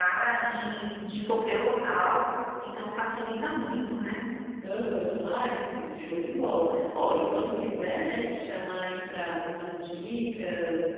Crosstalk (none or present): none